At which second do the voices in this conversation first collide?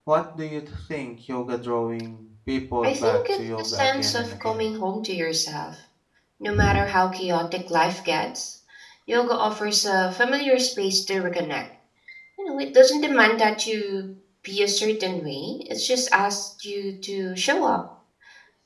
2.8 s

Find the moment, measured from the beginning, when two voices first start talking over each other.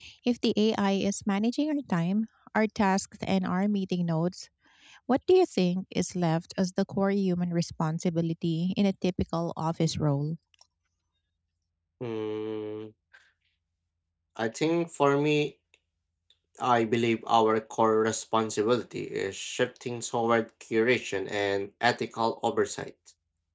none

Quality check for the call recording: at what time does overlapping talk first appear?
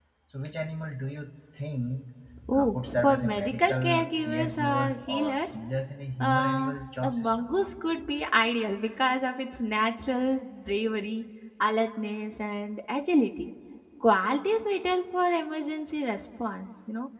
2.5 s

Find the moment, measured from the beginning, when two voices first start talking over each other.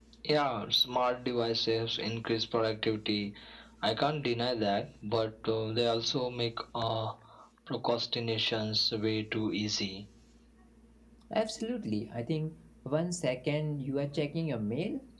none

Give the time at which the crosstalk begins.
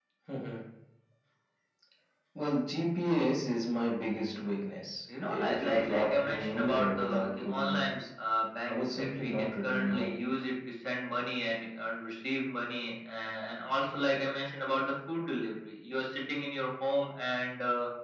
5.3 s

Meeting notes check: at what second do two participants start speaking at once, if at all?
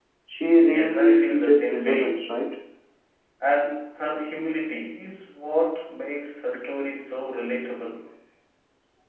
0.6 s

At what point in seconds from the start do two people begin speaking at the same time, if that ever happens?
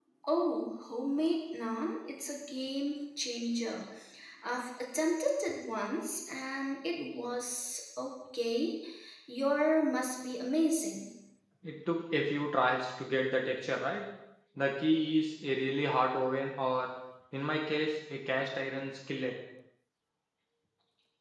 none

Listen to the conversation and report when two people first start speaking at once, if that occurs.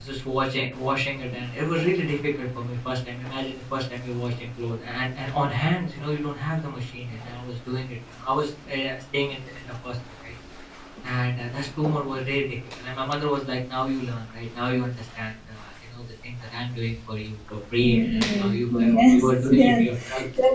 17.8 s

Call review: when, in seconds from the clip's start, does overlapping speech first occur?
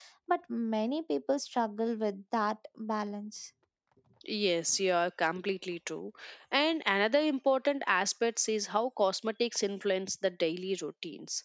none

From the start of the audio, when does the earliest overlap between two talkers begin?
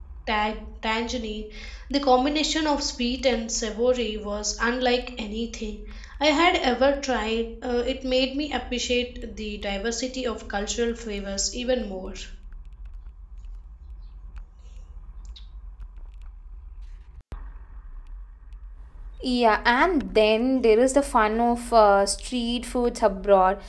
none

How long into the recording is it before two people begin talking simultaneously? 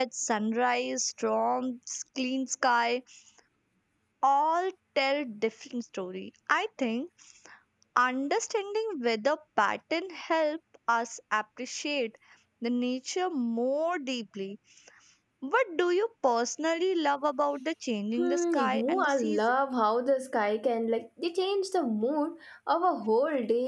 18.2 s

